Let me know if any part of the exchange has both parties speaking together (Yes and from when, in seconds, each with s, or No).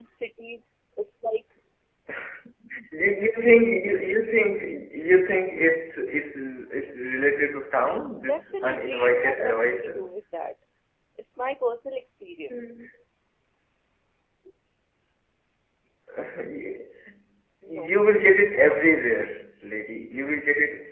Yes, from 8.3 s